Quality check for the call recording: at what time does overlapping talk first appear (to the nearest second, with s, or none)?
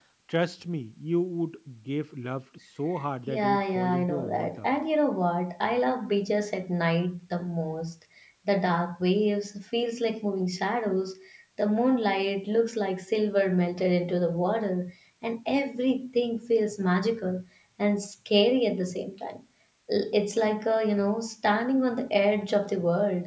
3 s